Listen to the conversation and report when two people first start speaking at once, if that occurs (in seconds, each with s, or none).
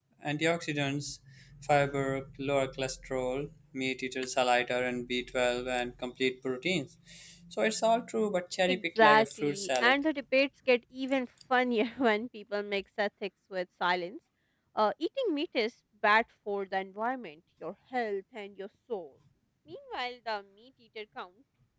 8.7 s